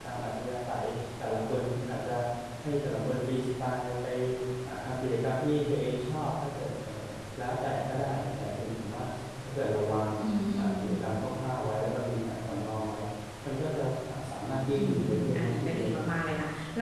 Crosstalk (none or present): present